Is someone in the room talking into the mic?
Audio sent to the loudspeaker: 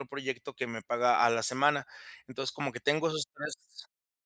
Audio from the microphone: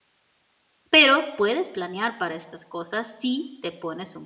Yes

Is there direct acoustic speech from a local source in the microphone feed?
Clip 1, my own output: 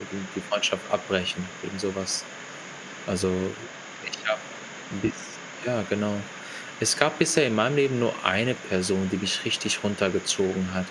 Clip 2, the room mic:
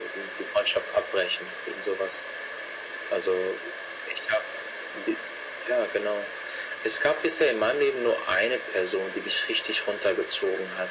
No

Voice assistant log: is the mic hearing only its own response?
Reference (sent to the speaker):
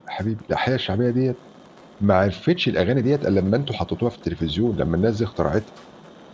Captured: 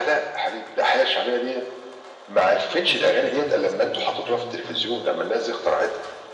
No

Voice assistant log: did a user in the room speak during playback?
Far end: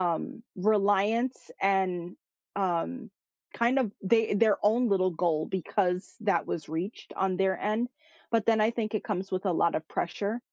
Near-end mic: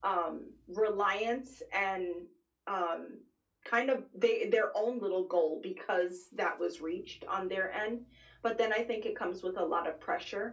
No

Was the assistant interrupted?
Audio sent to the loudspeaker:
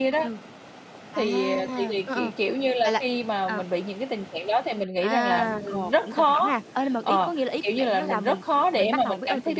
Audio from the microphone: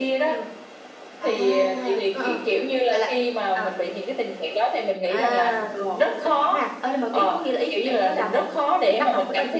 No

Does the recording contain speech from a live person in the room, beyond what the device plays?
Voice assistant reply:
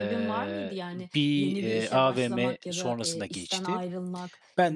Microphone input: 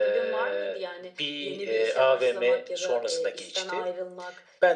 No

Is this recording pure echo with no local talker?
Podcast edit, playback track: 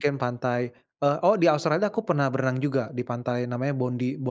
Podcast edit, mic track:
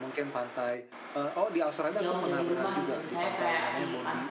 No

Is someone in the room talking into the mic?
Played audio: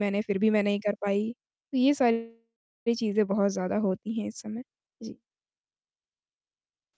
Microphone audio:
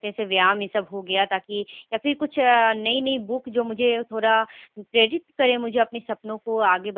Yes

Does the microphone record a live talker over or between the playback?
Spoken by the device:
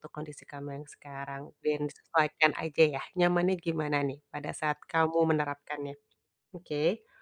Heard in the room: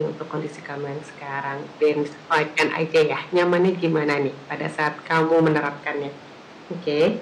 No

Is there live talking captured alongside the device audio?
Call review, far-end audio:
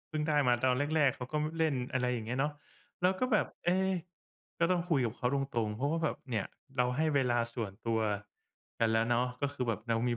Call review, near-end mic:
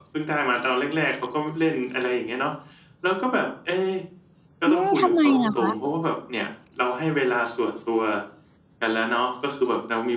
Yes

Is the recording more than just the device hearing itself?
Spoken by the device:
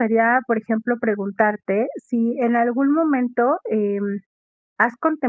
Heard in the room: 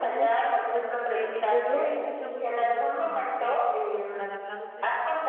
Yes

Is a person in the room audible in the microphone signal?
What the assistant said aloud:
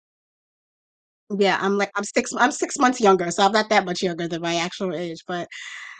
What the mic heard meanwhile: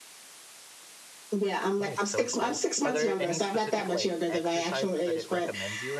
Yes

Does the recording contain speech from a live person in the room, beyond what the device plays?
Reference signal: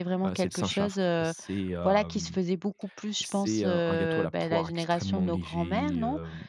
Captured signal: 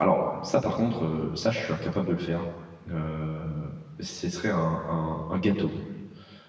Yes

